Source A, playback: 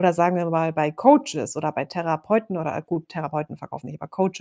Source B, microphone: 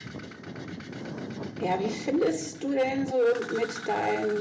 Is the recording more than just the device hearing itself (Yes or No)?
Yes